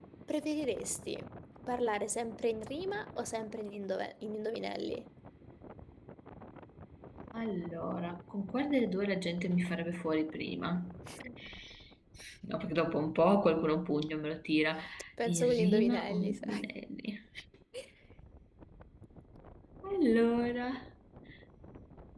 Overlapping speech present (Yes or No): Yes